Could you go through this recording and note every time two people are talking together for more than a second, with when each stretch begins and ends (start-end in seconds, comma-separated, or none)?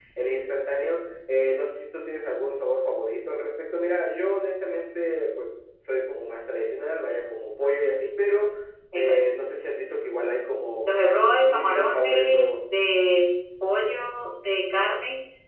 10.8-12.5